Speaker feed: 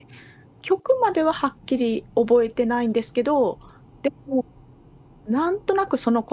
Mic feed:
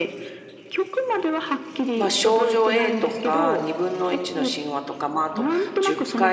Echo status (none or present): present